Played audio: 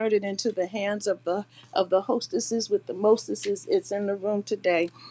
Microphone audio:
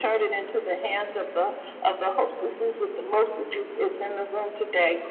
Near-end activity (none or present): none